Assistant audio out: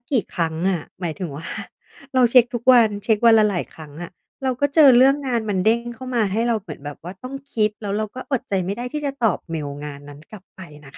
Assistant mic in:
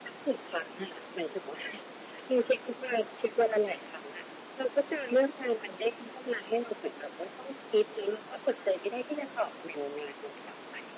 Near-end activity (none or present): none